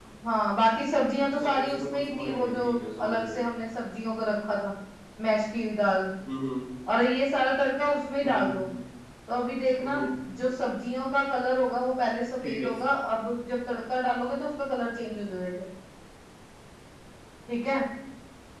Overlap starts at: 1.2 s

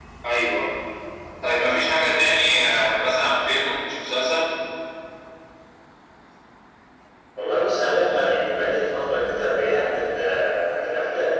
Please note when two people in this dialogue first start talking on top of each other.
none

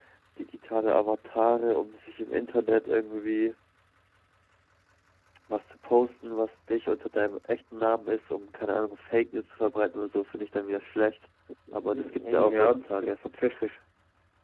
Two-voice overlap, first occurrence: 11.9 s

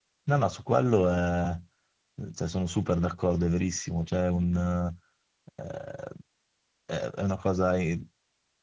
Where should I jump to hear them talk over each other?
none

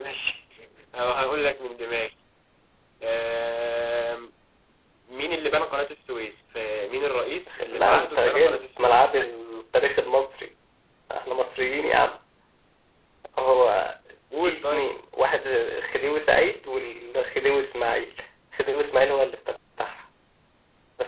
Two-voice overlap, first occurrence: 7.7 s

